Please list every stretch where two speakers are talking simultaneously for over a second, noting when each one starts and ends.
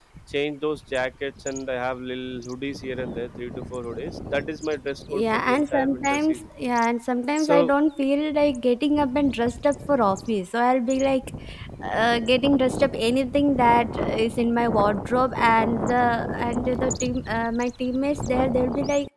5.1-6.4

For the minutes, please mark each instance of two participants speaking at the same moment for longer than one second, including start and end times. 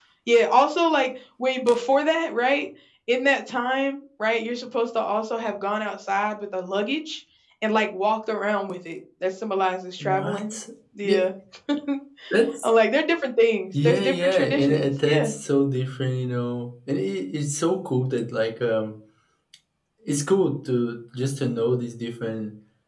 13.8-15.3

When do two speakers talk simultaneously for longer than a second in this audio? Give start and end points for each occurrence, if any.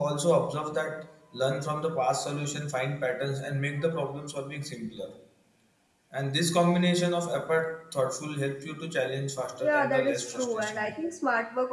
9.6-10.9

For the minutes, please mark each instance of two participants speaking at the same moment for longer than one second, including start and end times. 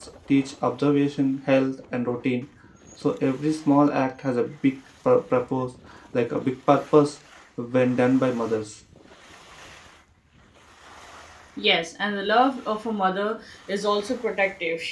none

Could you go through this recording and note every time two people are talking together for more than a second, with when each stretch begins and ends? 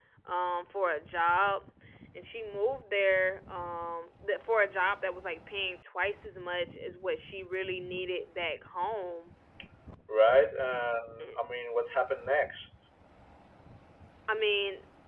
none

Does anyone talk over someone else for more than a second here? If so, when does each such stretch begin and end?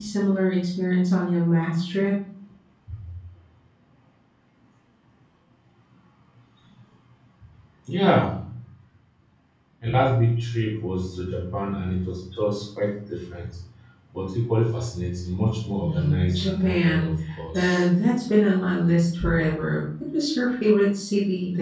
15.8-17.1

